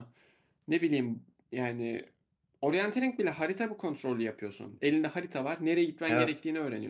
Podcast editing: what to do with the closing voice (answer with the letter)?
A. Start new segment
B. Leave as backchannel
B